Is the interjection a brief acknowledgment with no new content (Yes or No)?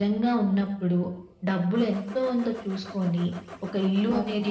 Yes